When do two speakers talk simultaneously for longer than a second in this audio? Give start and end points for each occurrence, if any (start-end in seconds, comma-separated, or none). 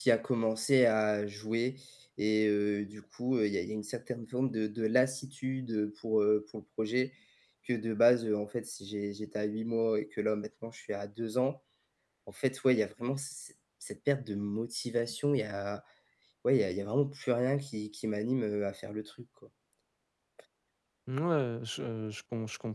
none